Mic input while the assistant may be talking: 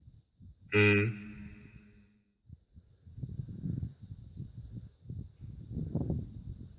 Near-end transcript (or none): Mhm.